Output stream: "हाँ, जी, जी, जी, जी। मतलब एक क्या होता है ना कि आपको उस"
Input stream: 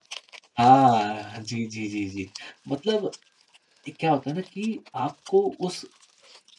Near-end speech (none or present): none